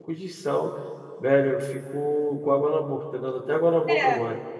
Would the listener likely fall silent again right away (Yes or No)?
No